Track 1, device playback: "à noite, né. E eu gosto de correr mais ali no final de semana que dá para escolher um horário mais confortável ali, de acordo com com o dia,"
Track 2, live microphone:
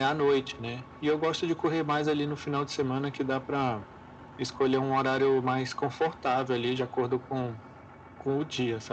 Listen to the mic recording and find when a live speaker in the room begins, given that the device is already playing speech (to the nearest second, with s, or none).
none